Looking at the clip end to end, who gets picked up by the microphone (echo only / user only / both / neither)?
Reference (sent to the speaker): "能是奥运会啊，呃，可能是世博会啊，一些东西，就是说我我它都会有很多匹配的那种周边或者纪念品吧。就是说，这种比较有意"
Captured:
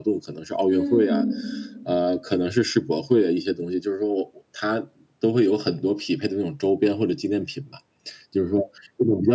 both